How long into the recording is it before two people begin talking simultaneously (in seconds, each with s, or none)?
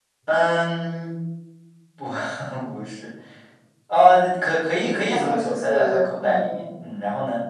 5.1 s